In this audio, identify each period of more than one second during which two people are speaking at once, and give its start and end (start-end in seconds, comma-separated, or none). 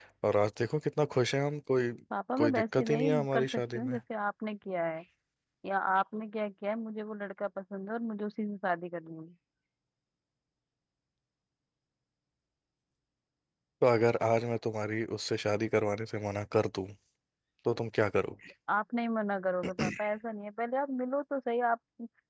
2.4-4.0